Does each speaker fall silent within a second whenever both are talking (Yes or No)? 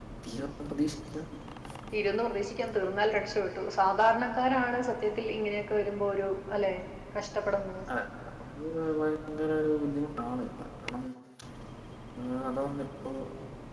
Yes